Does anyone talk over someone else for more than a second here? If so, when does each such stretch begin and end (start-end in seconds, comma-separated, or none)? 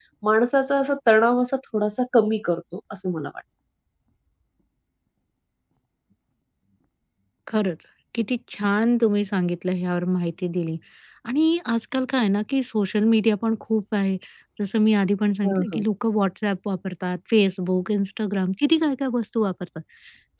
none